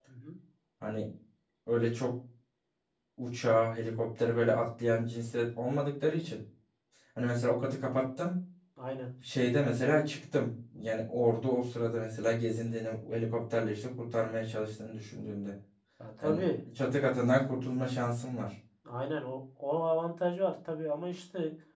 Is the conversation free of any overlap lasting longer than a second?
Yes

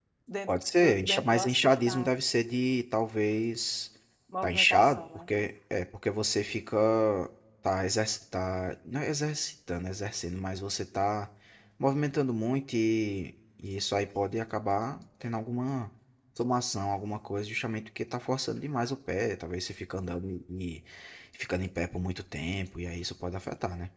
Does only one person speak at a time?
No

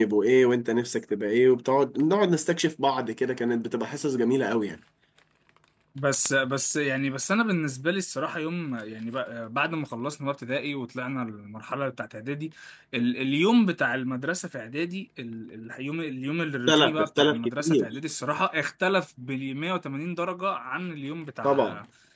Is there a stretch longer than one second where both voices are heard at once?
Yes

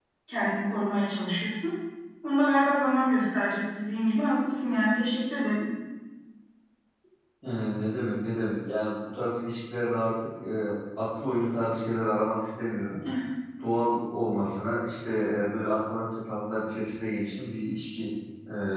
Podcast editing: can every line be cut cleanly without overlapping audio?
Yes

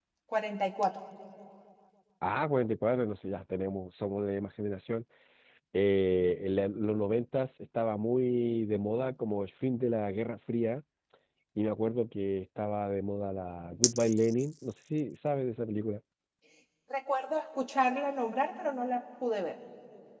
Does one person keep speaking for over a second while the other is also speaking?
No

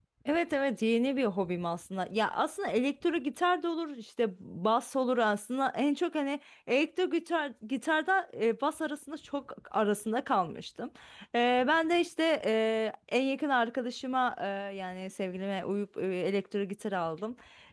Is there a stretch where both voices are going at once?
No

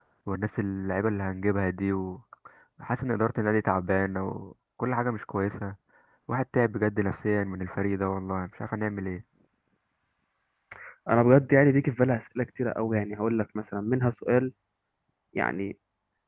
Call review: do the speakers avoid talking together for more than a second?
Yes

